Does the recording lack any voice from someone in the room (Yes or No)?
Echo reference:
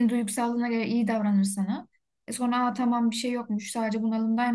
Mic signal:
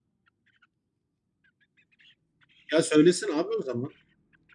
No